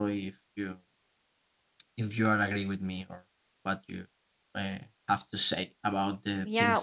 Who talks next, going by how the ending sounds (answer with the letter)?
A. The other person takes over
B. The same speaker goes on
A